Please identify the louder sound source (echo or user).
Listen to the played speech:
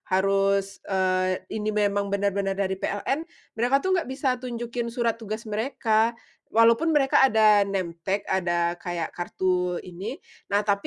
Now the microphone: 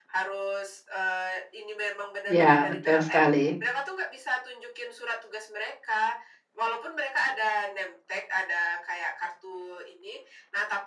user